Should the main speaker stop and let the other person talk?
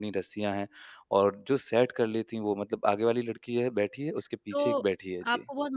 Yes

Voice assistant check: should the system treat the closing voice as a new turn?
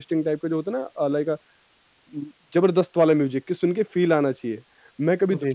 No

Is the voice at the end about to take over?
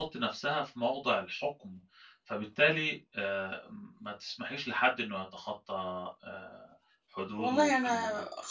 Yes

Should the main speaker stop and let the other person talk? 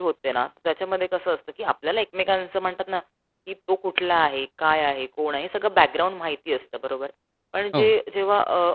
No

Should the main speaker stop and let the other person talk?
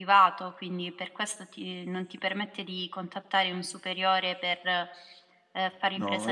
Yes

